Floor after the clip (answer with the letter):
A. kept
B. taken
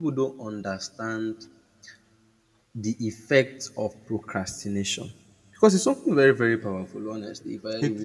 A